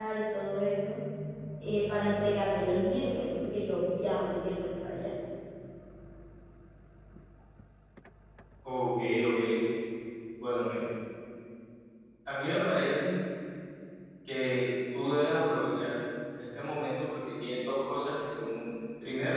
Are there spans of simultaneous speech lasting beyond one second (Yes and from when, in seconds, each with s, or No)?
No